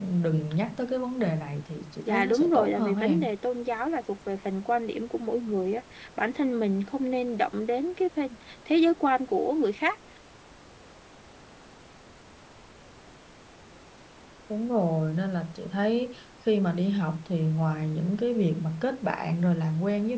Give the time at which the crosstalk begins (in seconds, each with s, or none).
2.1 s